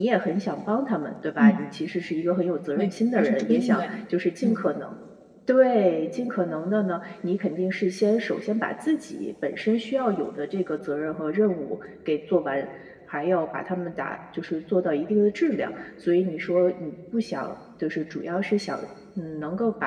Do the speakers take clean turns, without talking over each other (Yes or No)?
No